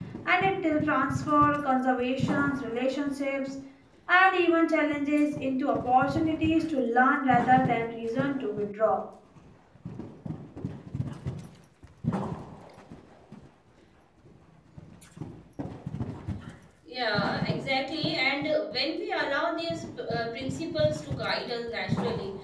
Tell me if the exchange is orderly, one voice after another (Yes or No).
Yes